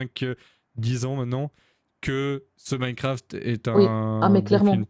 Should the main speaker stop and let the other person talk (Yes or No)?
Yes